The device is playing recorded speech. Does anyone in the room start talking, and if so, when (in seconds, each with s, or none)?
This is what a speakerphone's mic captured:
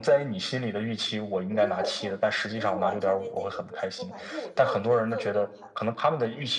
1.5 s